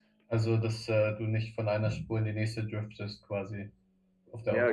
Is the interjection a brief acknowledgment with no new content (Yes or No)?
No